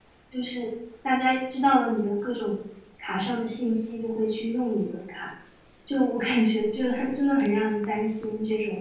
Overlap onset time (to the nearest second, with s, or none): none